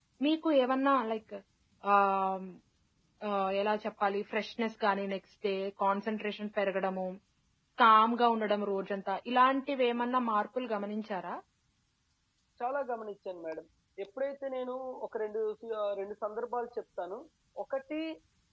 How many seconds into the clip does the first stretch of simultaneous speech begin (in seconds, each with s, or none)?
none